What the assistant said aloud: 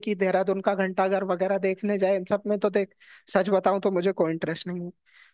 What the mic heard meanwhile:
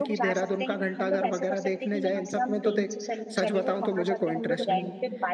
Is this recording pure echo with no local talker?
No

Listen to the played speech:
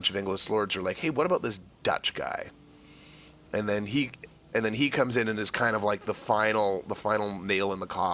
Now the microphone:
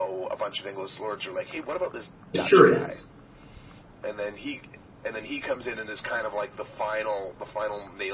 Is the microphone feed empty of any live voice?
No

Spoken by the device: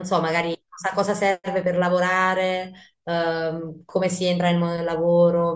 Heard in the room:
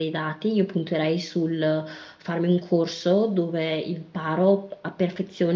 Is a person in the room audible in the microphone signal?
Yes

